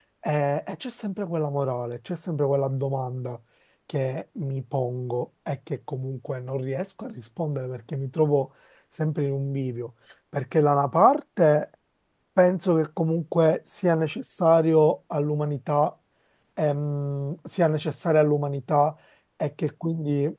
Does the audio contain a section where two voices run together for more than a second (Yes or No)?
No